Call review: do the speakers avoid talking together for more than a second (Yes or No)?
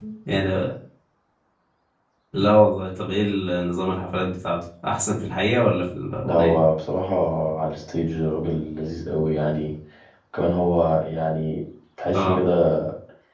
Yes